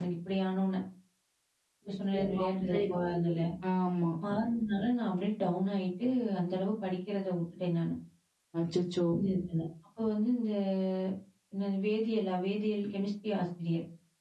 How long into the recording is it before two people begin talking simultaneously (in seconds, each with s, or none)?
2.1 s